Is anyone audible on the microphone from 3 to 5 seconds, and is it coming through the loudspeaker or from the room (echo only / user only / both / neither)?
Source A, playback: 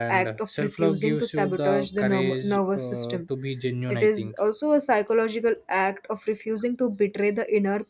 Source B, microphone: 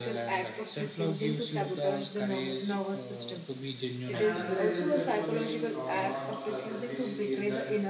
both